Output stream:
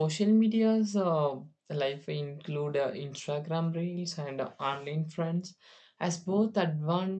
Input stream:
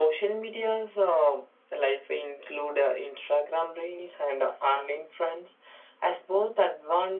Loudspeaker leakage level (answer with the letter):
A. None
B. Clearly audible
B